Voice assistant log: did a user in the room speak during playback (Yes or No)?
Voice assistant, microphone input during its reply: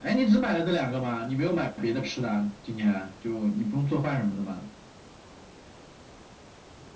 No